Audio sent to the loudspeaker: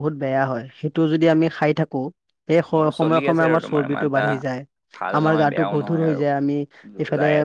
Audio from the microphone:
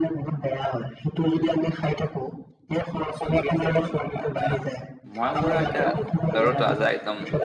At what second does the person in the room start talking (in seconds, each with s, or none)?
5.1 s